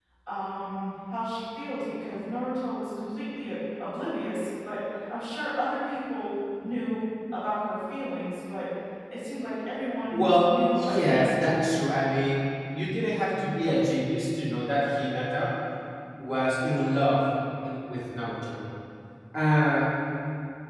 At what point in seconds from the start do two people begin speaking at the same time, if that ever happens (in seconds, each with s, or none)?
10.1 s